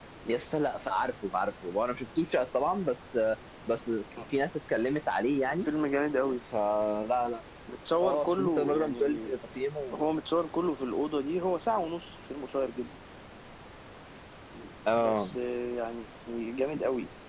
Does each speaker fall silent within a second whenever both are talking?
No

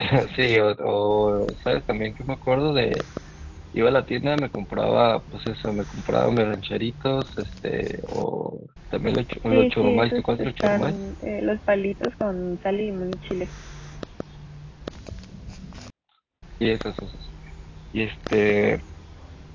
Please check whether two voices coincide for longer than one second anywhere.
Yes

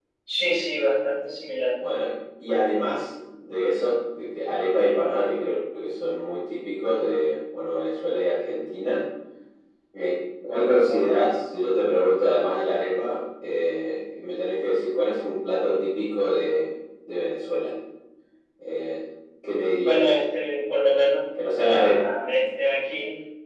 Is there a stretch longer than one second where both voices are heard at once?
No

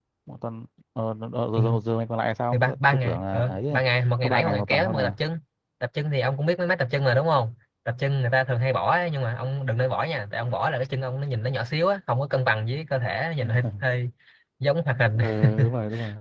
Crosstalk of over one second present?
Yes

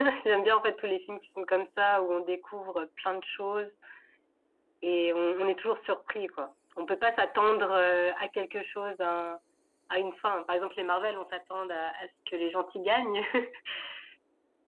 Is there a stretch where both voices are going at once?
No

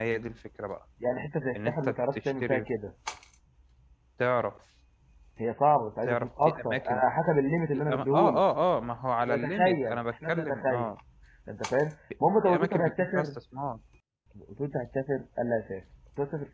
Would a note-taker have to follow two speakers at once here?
Yes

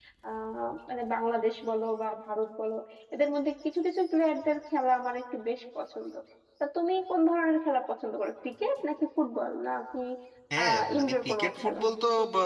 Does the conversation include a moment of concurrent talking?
Yes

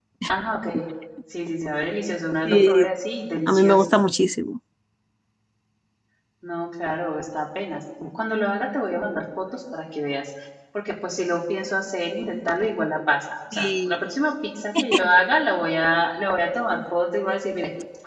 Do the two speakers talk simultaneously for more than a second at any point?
No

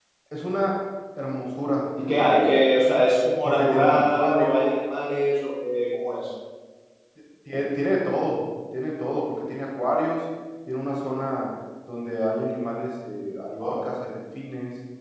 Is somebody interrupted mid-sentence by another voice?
Yes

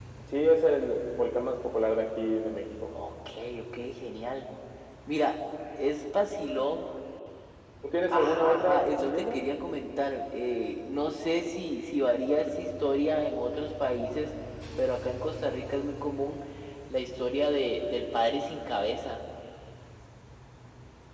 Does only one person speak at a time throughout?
No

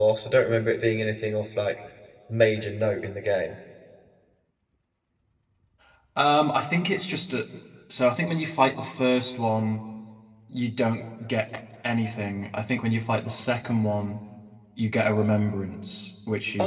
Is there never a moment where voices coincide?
Yes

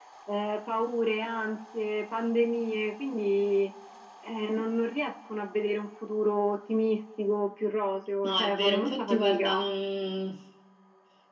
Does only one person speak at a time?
No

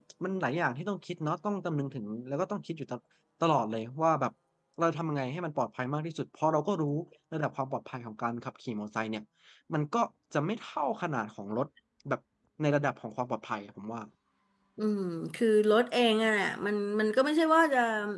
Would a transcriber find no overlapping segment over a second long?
Yes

